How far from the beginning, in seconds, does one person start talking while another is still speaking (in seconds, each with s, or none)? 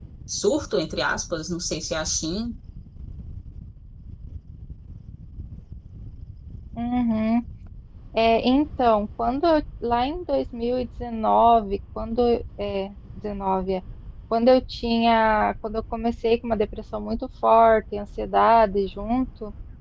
none